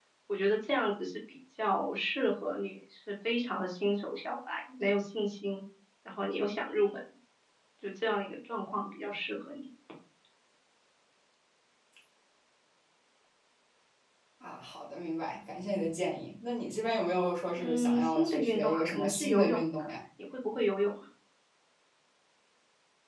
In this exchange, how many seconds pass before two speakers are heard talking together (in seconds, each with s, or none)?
17.6 s